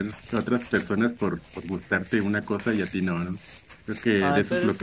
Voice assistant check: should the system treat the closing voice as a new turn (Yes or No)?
Yes